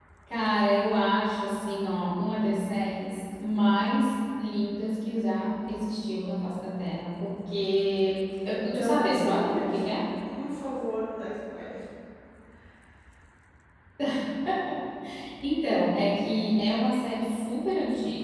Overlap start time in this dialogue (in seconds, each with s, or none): 8.5 s